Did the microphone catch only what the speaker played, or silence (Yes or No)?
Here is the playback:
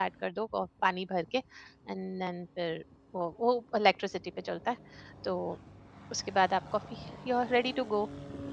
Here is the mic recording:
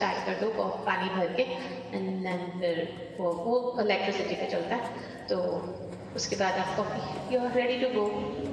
Yes